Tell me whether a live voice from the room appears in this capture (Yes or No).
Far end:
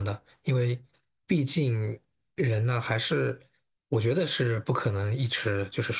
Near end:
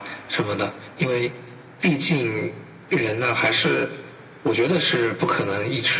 No